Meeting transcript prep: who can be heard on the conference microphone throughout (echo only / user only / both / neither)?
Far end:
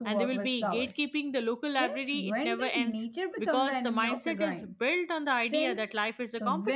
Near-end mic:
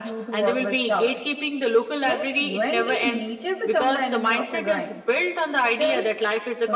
echo only